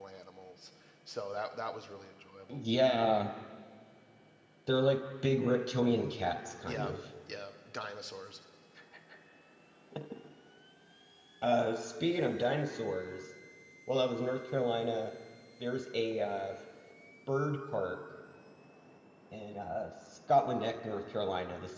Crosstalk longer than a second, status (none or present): none